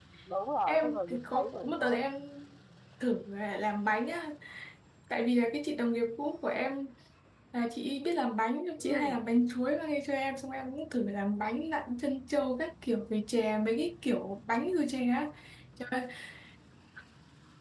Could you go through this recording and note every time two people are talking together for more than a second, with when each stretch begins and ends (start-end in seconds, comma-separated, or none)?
0.7-2.0